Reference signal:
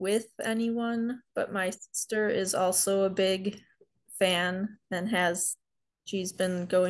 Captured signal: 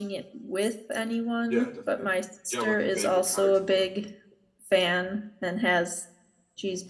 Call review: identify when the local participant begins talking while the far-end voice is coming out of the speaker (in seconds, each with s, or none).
1.5 s